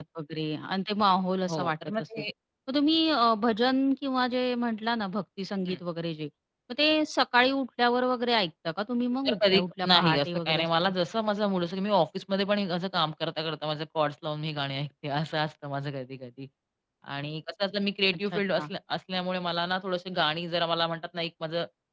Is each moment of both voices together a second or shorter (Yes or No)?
No